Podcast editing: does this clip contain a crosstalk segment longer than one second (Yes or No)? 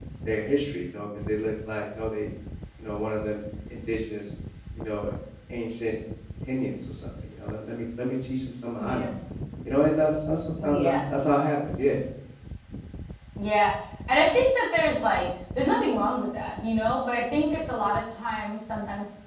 No